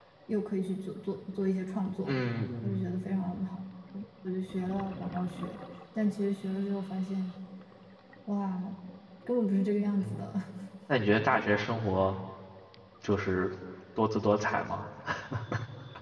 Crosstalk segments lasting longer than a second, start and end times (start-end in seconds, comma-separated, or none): none